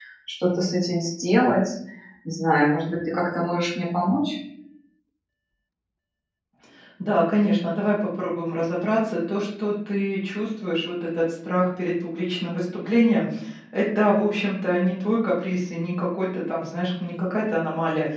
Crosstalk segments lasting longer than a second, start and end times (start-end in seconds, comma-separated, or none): none